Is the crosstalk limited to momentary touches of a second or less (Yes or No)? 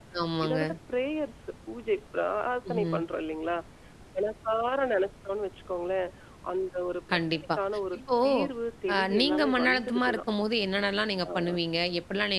No